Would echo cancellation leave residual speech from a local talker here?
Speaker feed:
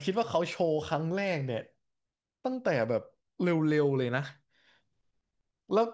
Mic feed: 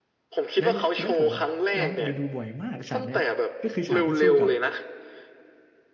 Yes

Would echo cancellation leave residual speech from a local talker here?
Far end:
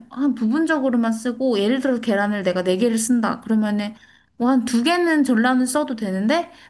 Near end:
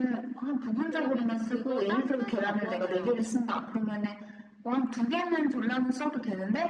Yes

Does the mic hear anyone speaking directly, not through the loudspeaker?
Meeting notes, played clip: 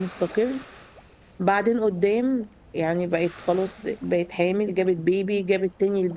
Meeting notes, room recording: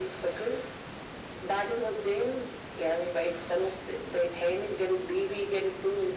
No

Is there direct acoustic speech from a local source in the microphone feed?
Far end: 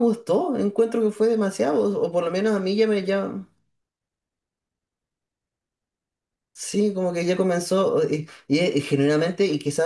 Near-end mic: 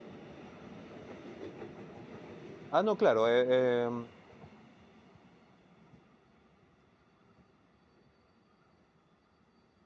Yes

